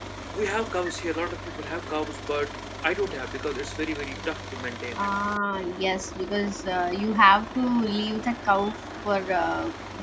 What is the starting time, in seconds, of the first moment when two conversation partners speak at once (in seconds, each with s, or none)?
none